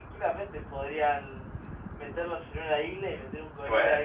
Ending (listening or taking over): taking over